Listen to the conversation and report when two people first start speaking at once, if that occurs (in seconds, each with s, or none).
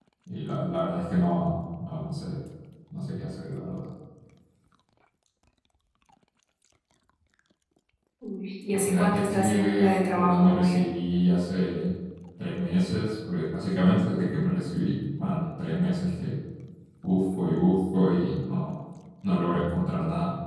8.7 s